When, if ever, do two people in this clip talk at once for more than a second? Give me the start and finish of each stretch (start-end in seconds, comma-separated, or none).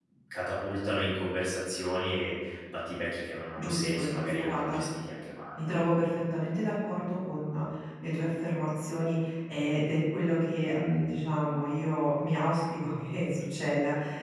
3.6-4.8